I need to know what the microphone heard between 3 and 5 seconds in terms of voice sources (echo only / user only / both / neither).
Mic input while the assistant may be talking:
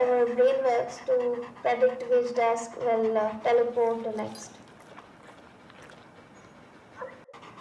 echo only